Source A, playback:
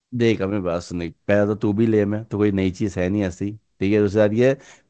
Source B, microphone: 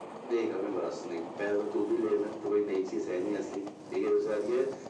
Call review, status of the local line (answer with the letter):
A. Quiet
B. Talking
A